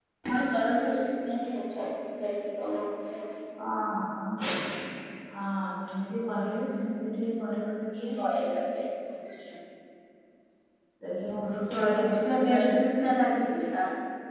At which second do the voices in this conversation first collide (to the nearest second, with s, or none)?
11 s